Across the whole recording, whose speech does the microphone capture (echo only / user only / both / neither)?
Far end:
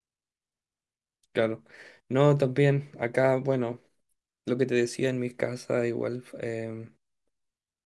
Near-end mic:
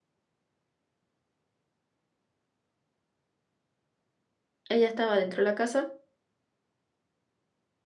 user only